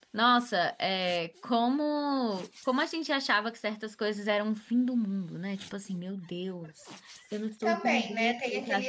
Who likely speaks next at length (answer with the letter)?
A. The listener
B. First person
A